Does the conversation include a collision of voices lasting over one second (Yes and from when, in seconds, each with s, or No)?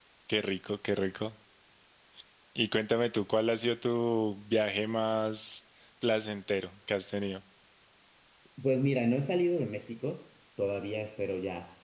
No